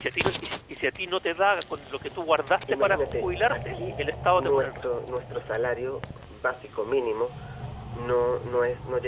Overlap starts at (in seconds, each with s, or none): 2.7 s